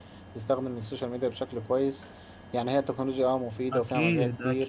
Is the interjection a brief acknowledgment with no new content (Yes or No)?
No